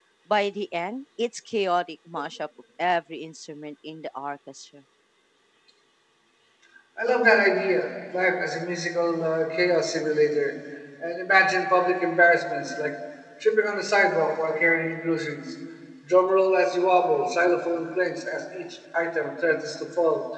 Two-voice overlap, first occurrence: none

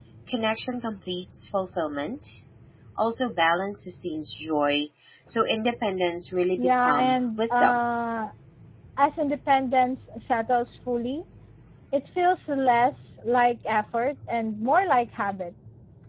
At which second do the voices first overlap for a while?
6.6 s

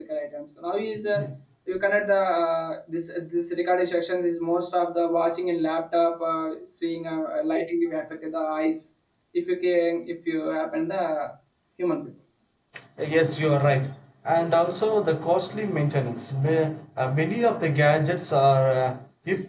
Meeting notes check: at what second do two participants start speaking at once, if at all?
none

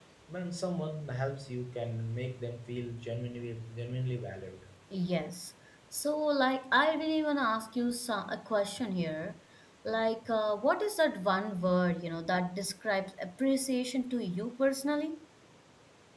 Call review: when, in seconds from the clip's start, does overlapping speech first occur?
none

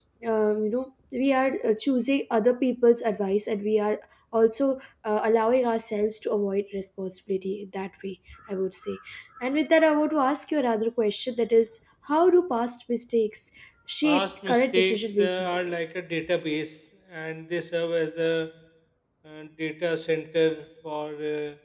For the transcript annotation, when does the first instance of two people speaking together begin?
14.0 s

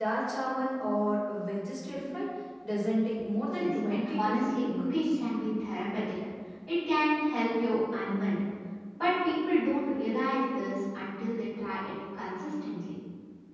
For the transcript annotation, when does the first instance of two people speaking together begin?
3.5 s

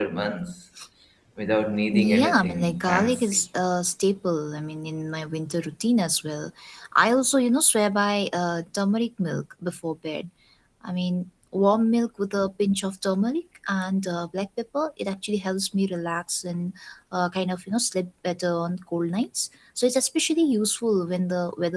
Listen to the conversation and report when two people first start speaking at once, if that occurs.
1.9 s

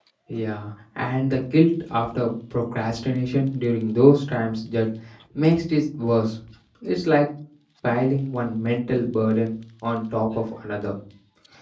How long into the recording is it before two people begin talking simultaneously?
none

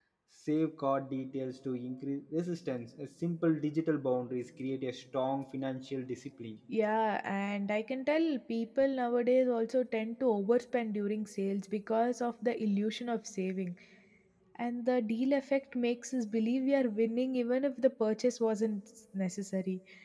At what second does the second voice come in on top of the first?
none

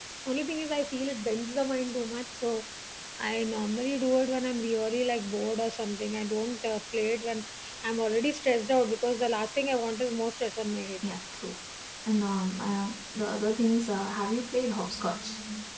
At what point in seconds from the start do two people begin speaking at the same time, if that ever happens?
none

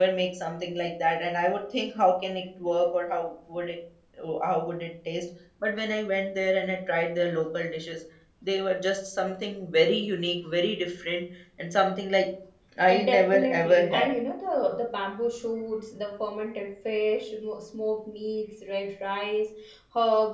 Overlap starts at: 12.9 s

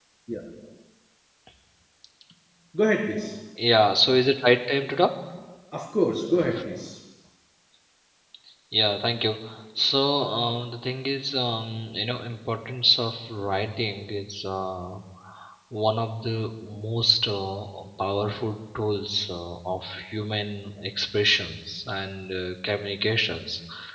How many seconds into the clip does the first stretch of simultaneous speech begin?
none

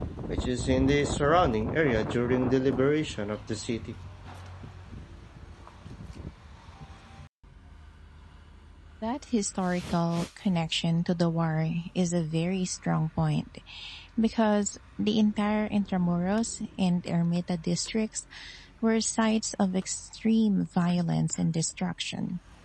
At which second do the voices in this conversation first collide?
none

